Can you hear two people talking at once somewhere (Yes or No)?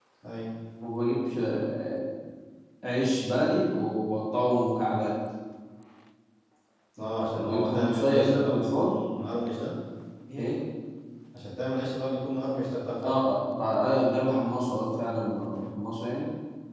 Yes